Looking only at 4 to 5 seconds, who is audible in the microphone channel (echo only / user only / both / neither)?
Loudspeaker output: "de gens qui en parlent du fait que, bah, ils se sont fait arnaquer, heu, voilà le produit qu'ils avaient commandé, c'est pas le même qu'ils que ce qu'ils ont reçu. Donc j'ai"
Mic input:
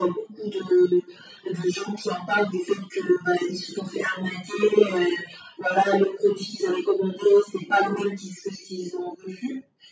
echo only